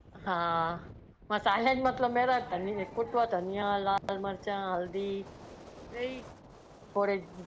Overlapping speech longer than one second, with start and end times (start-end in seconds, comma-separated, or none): none